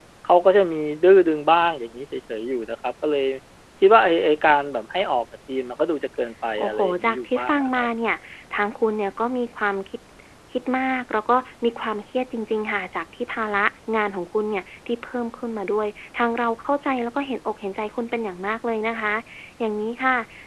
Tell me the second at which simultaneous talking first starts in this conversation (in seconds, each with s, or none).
6.6 s